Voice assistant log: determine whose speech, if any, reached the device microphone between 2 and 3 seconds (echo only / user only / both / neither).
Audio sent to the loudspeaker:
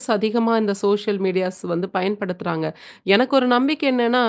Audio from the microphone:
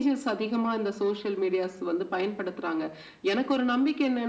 echo only